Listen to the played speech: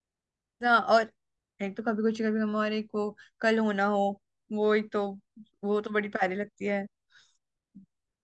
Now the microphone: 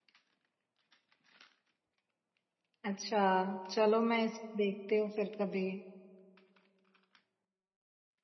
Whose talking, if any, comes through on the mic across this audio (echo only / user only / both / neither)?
user only